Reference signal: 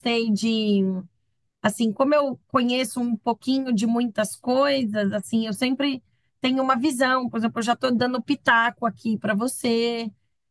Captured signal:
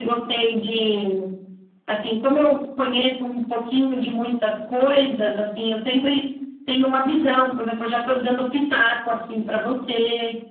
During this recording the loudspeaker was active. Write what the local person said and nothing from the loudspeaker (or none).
none